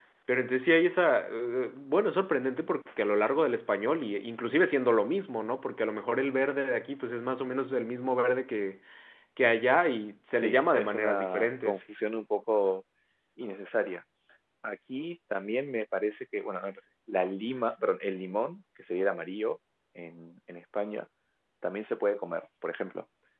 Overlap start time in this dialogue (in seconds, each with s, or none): 10.3 s